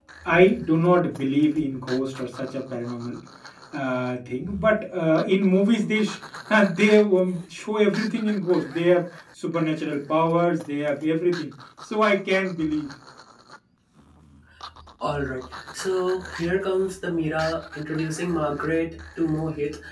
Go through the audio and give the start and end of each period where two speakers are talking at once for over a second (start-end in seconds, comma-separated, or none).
none